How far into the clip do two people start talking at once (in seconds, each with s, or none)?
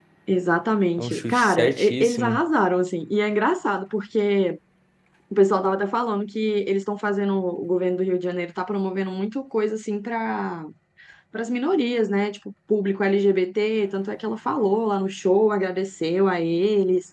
1.0 s